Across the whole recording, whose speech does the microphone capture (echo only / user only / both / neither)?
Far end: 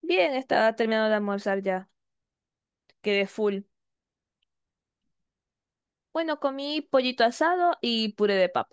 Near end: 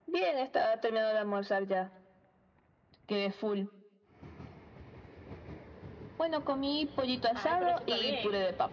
both